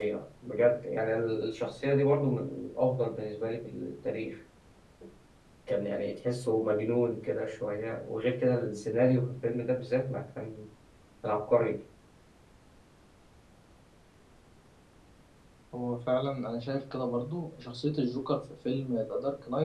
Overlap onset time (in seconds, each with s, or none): none